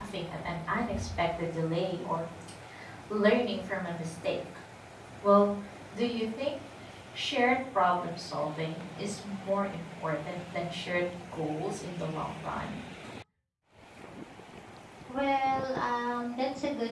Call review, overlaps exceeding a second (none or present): none